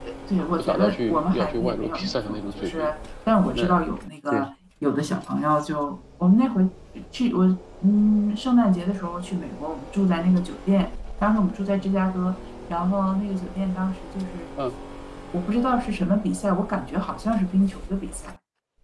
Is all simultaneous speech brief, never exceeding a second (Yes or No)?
No